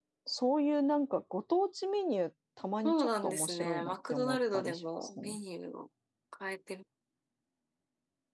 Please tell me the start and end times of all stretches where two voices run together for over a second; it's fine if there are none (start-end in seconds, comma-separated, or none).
2.8-5.4